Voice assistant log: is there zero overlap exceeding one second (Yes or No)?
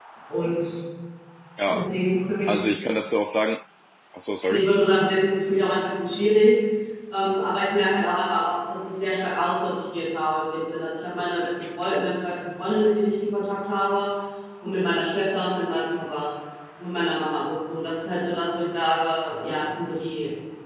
Yes